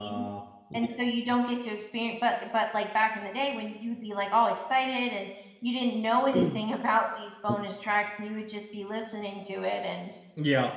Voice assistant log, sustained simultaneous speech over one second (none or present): none